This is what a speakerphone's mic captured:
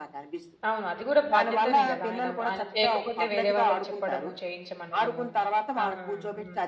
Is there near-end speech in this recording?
Yes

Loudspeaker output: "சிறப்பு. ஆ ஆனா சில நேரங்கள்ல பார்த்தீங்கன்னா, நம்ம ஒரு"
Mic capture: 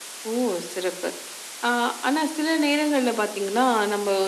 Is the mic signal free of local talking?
Yes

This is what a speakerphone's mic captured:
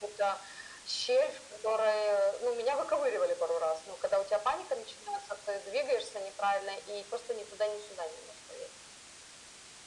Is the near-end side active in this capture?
No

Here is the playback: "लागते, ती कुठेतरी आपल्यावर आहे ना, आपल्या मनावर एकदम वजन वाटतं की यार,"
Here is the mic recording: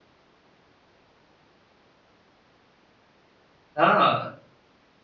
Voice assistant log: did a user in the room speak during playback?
Yes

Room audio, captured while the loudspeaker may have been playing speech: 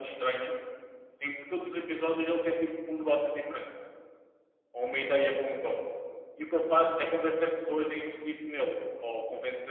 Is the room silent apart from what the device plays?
Yes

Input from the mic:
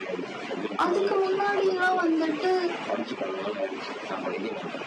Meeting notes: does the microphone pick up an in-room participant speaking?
Yes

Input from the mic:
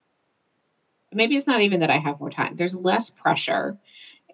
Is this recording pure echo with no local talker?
No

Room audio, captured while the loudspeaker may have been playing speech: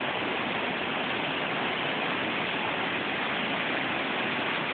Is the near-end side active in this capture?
No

